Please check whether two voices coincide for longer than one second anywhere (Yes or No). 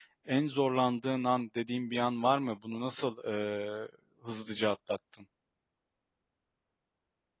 No